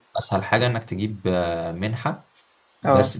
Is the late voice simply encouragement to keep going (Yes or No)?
Yes